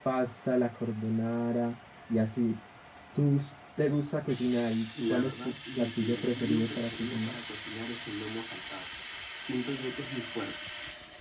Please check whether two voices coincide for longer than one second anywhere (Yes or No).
Yes